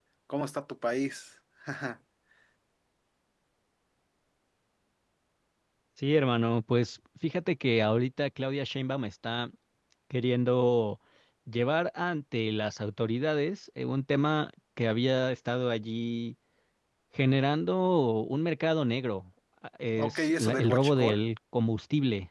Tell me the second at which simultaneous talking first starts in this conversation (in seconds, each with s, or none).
20.0 s